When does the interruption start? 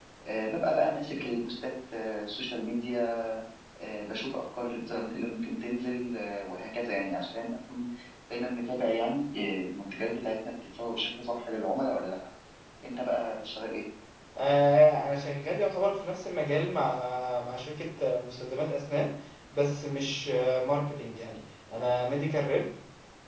none

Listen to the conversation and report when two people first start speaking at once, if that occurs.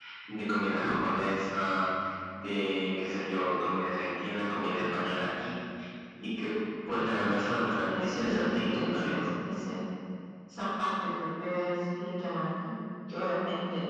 8 s

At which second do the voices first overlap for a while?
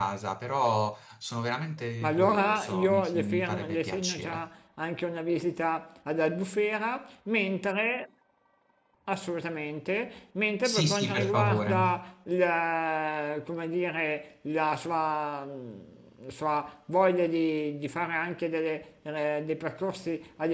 2 s

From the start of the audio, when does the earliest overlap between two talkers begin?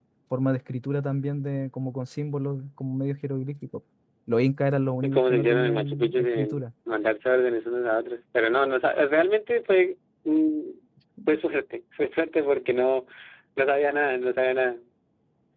5 s

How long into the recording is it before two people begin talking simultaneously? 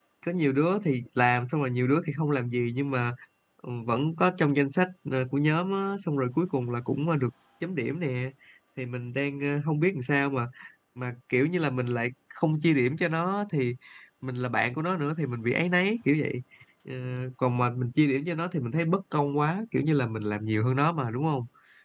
none

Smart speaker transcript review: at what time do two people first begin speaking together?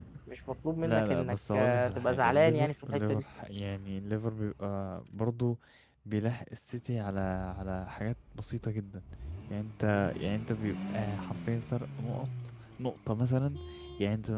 1 s

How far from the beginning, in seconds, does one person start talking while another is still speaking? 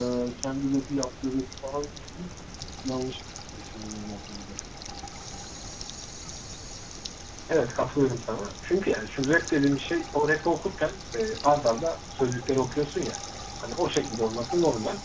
none

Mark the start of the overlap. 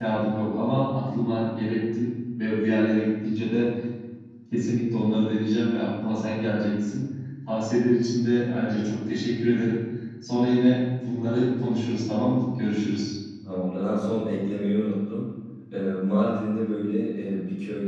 none

